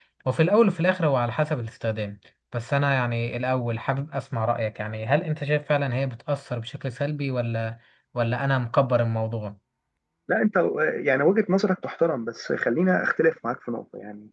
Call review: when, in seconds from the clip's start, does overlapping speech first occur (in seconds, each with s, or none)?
none